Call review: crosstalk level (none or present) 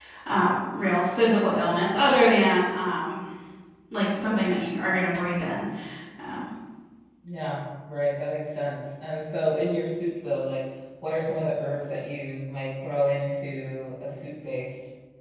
none